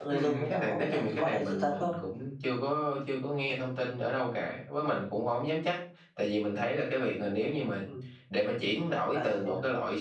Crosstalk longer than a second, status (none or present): present